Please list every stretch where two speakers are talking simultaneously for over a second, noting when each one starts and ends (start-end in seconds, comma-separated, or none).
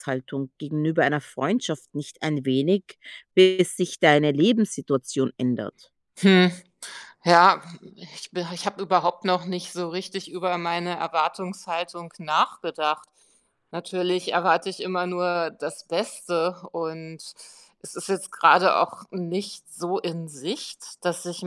none